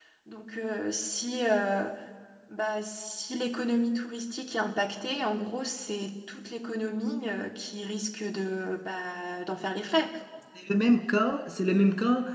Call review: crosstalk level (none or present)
none